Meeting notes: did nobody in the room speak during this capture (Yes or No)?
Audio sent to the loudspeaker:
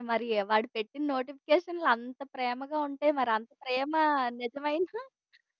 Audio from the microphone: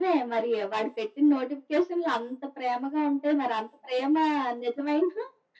Yes